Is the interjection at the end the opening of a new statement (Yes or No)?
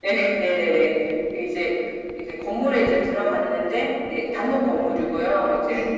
No